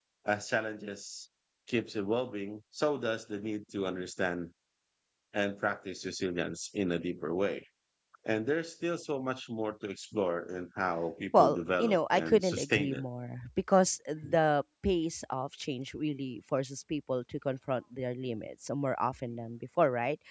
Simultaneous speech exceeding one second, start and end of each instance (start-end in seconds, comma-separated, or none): 11.3-13.0